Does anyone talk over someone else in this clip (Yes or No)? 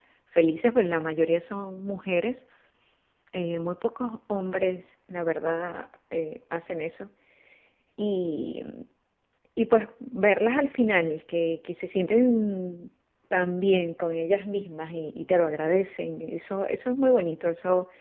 No